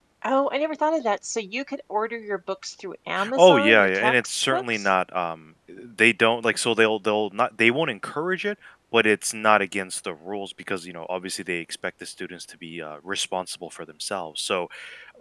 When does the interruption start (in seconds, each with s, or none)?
3.2 s